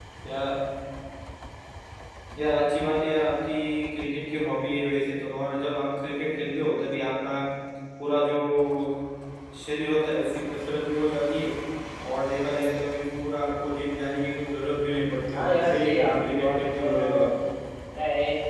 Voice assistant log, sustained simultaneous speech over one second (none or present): present